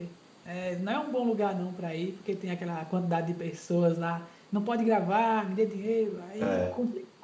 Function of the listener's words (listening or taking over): listening